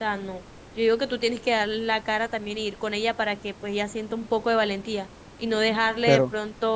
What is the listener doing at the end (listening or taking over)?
listening